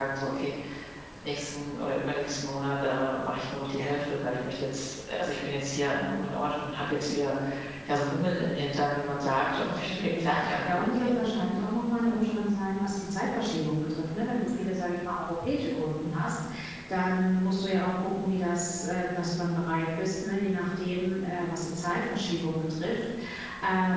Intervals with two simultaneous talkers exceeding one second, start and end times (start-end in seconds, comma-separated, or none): 9.6-11.2